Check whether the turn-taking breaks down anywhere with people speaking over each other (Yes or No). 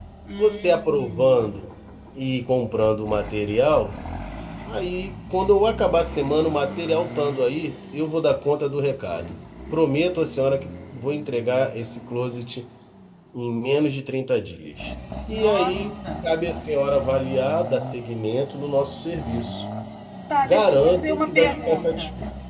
Yes